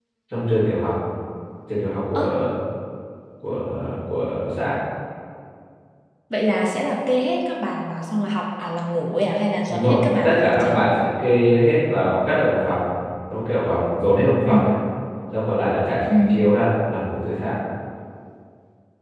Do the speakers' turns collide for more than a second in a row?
Yes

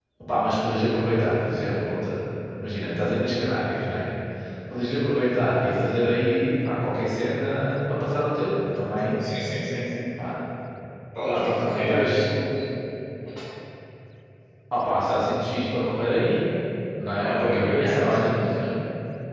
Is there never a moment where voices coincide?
No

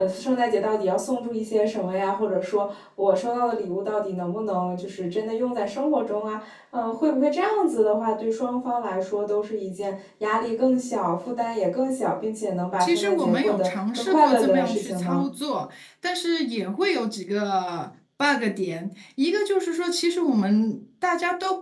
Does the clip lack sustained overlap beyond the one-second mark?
No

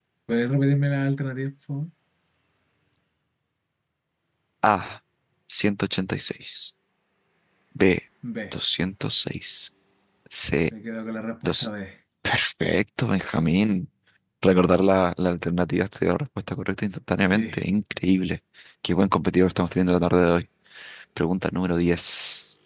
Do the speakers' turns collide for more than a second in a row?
No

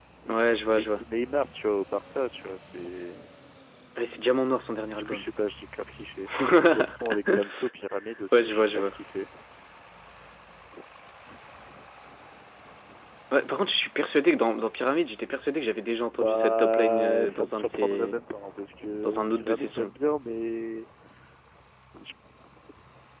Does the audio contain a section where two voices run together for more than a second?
Yes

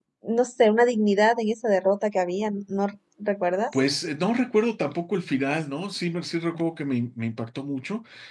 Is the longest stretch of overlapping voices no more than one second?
Yes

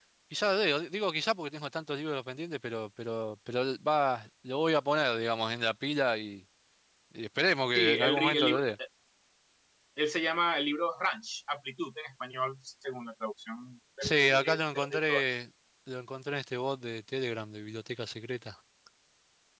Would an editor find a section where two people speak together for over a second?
Yes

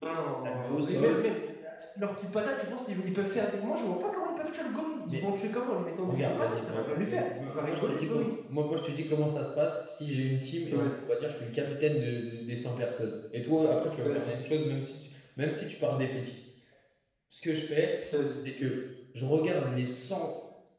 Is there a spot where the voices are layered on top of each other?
Yes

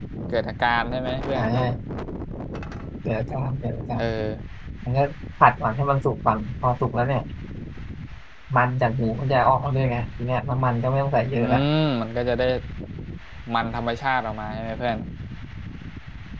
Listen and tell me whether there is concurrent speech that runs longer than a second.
No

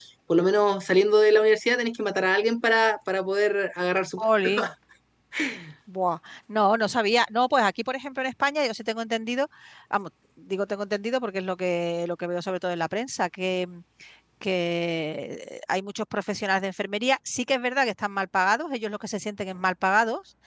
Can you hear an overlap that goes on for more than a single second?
No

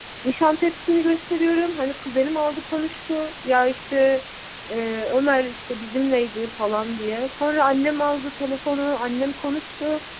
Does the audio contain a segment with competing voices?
No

